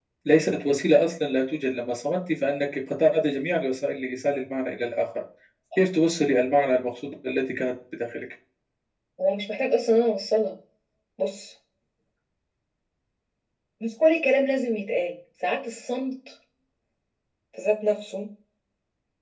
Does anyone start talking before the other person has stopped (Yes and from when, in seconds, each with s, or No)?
No